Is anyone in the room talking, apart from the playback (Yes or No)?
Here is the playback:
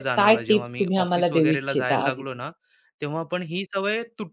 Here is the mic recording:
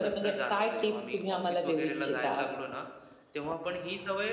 No